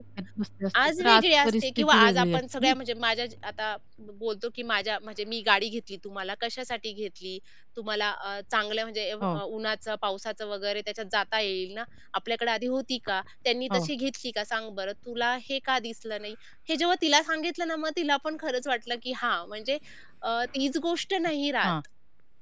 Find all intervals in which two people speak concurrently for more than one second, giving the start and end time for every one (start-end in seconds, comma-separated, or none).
1.0-2.7